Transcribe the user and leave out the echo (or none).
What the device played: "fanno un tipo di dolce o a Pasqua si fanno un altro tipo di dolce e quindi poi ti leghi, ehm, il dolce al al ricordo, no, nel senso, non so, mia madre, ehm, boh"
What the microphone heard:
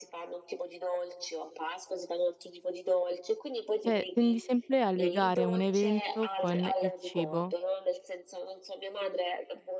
cioè tendi sempre a legare un evento con il cibo.